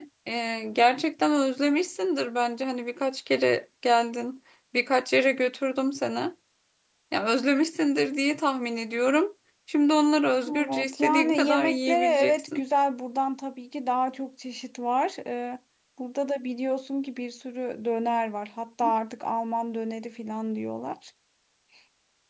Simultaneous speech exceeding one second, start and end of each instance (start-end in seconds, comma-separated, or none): 10.7-12.6